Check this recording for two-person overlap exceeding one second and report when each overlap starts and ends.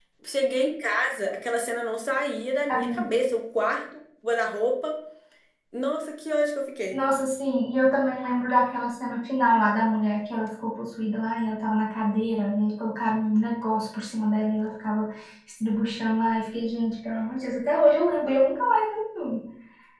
none

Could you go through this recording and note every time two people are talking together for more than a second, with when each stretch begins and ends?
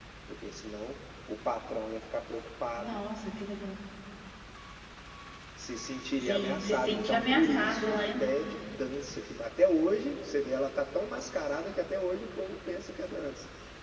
6.2-8.2

